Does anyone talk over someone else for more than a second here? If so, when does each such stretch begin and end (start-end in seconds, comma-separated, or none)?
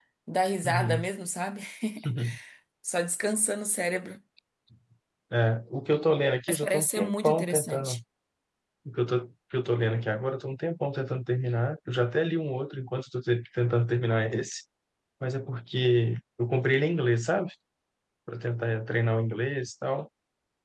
6.5-8.0